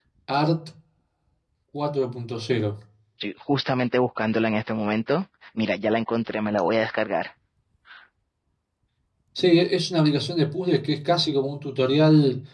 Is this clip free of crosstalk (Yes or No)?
Yes